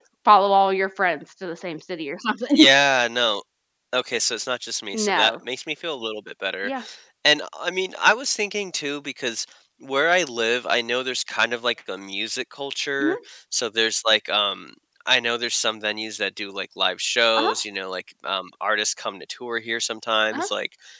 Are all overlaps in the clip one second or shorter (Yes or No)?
Yes